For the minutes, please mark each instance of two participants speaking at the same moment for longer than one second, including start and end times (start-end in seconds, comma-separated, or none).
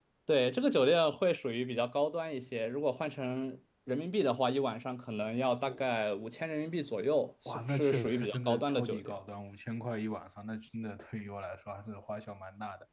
7.5-9.1